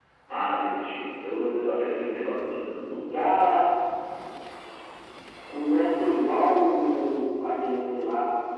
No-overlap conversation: Yes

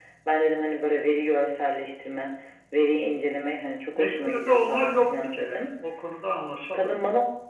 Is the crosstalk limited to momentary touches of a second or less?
No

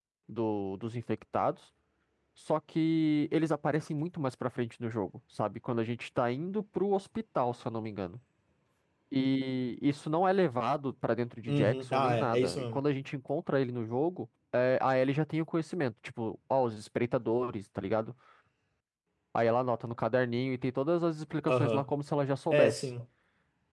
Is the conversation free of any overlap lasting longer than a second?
No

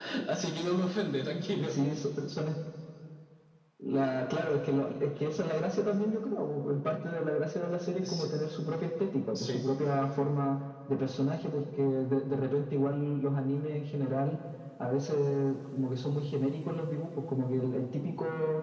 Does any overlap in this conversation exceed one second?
No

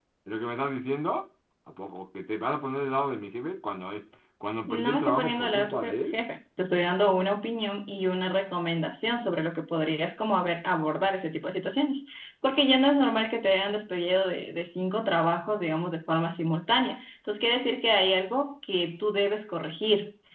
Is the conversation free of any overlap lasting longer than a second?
No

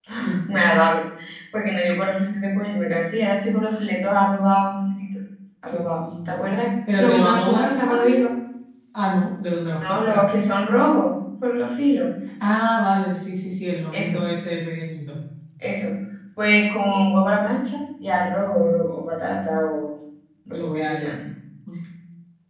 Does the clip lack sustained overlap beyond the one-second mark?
No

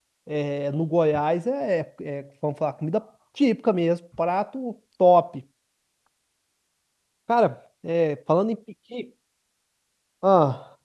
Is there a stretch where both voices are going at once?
No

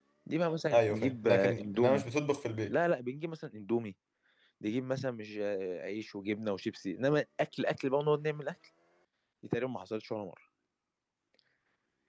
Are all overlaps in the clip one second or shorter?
No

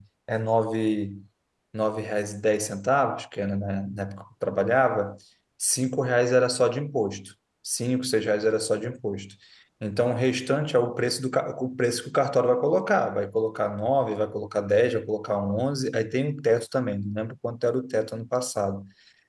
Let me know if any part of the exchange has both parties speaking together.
No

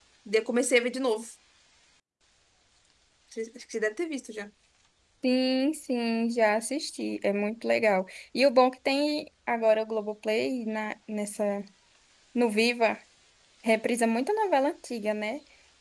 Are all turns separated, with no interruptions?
Yes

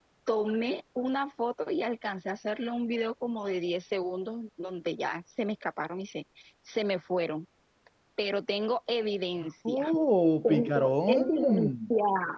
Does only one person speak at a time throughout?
No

